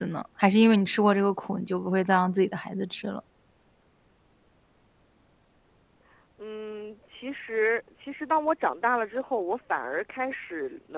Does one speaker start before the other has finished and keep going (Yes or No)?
No